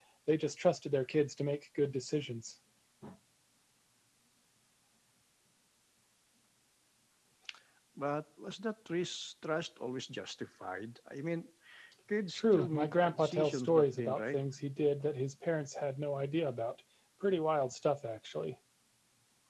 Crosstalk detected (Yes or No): Yes